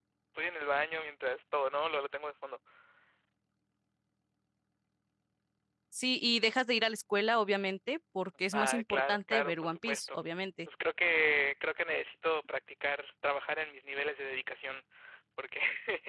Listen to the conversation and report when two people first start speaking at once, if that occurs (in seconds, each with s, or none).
8.5 s